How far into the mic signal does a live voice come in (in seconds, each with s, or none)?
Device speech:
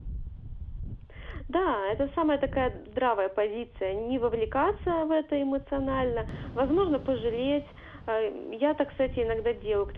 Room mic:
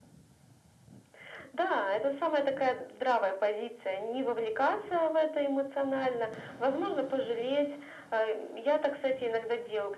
none